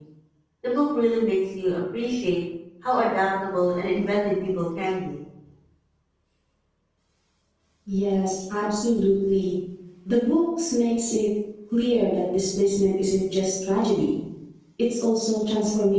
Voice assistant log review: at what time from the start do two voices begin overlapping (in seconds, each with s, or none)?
none